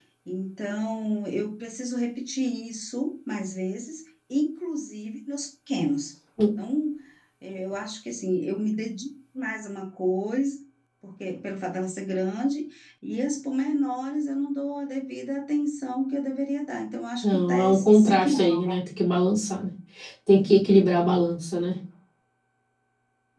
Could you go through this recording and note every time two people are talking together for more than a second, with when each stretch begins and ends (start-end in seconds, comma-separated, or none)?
17.2-18.7